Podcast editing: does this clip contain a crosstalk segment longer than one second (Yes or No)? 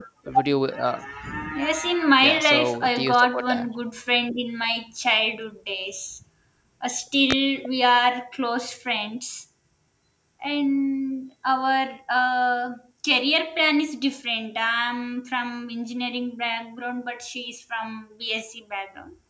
Yes